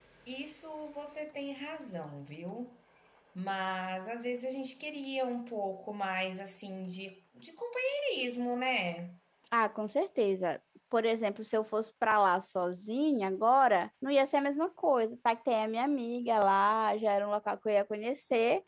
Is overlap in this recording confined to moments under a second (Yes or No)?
Yes